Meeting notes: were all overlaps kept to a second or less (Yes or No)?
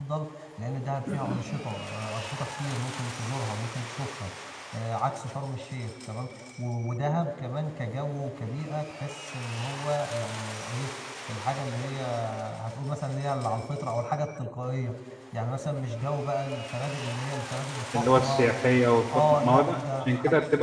No